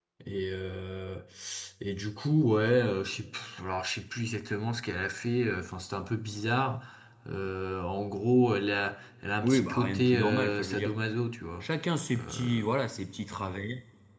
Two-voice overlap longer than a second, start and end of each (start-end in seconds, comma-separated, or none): 9.4-10.9